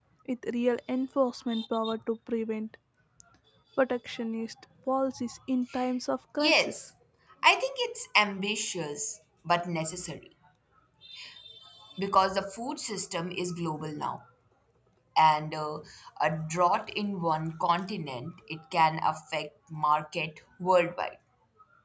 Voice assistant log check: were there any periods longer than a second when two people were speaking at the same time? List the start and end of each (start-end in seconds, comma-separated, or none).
none